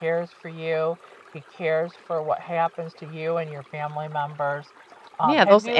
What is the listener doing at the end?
taking over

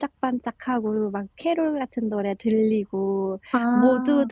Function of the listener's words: listening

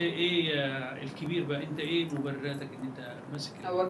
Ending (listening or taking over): taking over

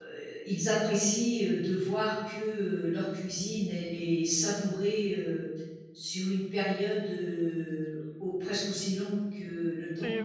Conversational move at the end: taking over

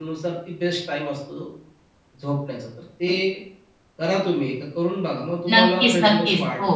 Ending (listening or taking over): taking over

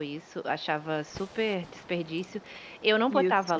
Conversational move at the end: listening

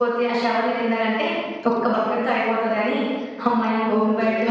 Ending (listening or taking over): taking over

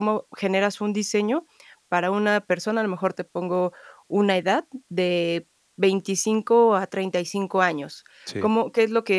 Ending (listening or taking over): listening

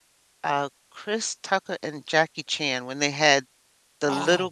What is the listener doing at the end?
listening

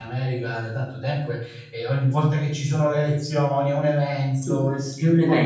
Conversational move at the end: taking over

